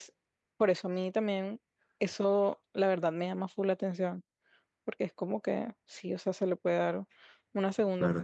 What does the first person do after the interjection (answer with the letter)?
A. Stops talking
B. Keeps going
A